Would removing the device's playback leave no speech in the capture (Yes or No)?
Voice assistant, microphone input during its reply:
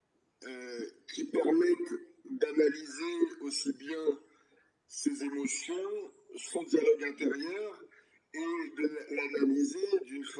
Yes